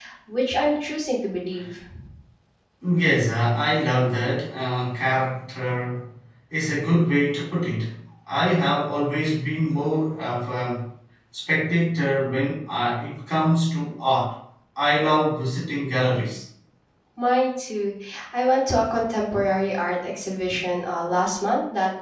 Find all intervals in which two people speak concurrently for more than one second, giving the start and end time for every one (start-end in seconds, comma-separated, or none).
none